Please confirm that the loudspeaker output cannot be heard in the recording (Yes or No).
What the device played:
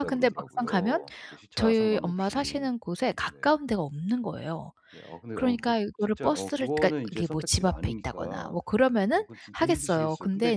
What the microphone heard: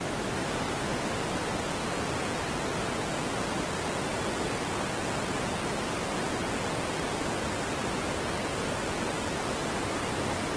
Yes